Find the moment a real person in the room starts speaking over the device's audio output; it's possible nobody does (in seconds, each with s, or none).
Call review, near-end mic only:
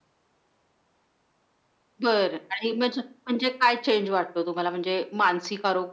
none